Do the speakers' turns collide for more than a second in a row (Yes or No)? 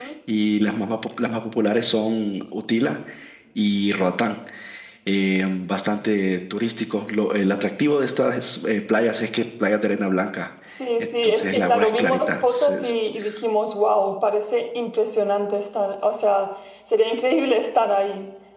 Yes